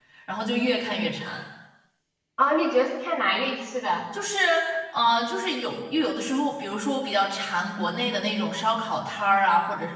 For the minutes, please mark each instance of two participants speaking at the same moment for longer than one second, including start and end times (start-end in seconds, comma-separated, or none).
none